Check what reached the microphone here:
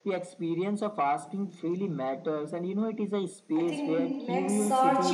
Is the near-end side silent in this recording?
No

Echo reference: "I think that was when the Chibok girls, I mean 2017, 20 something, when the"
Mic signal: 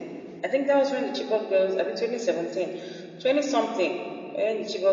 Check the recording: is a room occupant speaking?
No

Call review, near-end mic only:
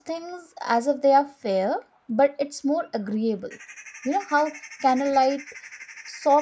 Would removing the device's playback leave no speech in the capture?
No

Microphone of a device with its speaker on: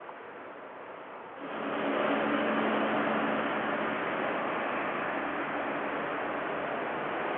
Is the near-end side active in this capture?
No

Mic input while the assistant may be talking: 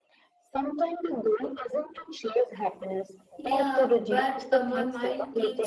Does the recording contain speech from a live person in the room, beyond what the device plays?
Yes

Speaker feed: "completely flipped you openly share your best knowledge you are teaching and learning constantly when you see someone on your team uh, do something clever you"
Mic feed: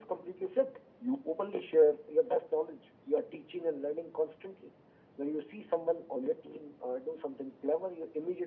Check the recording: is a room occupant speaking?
No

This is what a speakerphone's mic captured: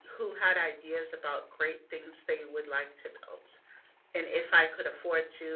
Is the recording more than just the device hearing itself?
No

